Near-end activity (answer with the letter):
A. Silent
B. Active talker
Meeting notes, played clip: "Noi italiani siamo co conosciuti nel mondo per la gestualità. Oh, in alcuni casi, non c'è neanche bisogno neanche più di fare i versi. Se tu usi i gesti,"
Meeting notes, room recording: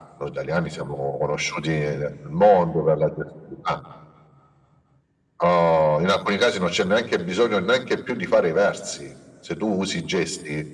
A